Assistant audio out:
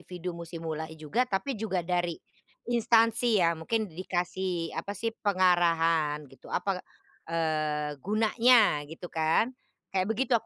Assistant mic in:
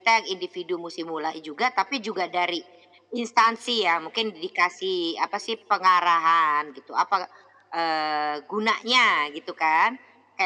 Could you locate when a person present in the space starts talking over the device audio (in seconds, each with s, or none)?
none